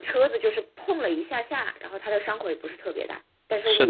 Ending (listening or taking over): taking over